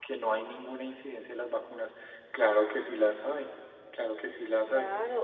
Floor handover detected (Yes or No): Yes